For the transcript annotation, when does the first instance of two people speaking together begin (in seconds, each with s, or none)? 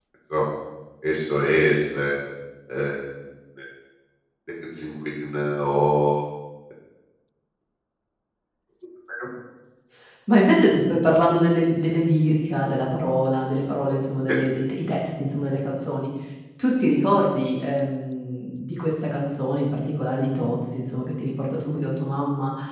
none